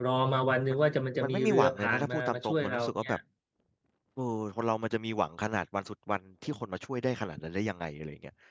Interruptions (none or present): present